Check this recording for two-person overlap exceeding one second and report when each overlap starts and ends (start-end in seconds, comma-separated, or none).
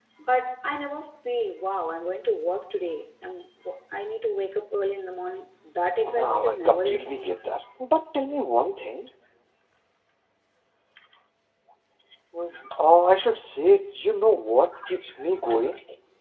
6.1-7.3